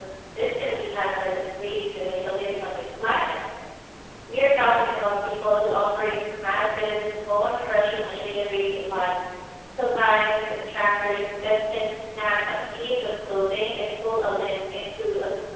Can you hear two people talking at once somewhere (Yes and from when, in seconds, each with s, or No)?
No